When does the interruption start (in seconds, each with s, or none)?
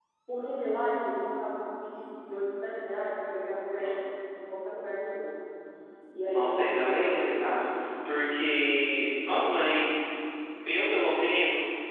6.3 s